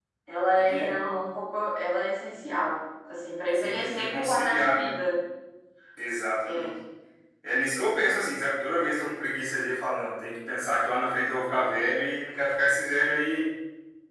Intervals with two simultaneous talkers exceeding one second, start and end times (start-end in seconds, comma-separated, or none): 3.5-5.0